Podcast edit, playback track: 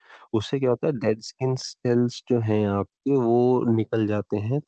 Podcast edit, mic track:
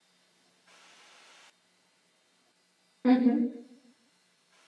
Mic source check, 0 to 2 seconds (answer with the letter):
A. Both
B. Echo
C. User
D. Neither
D